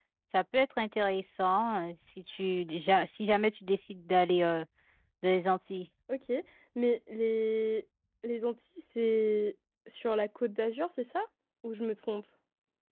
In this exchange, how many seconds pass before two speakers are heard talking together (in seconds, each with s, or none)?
none